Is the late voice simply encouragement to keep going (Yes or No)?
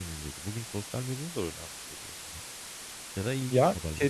No